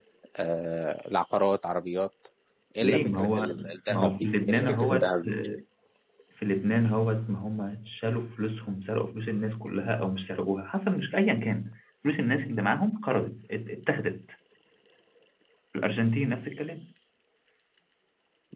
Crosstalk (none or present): present